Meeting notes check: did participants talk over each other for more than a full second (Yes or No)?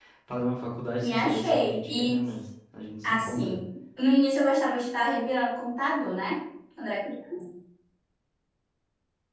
Yes